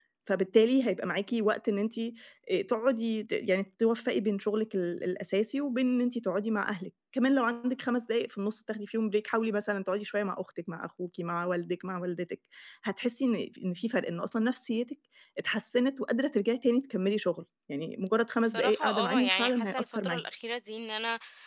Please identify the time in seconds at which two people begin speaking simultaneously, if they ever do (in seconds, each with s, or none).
18.4 s